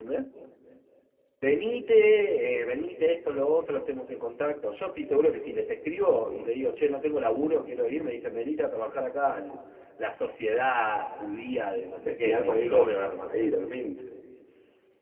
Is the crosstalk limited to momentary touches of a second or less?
No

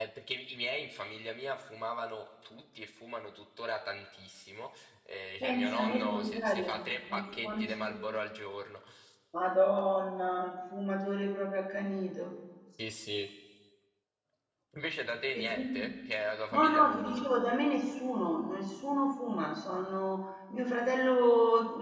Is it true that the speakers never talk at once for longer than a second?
No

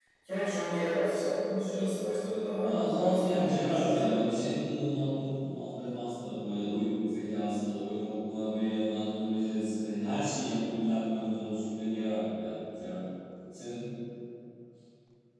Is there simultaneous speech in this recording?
Yes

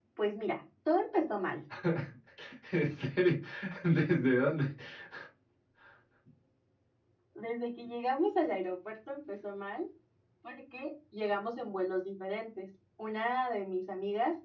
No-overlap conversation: Yes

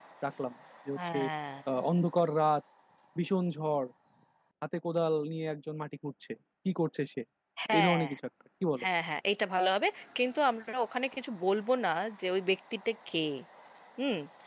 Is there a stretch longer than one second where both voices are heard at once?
No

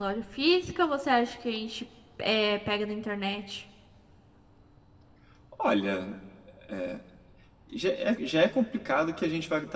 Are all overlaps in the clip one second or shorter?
Yes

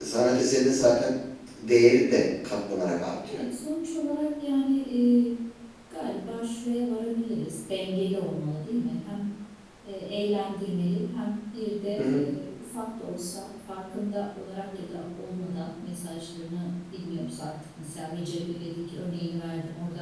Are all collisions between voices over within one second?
Yes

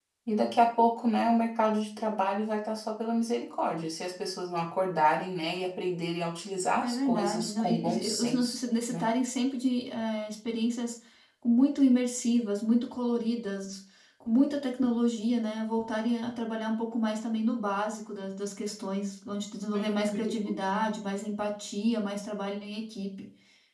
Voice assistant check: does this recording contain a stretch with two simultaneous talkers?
Yes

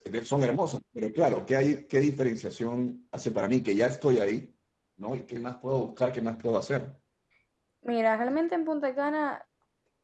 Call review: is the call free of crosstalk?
Yes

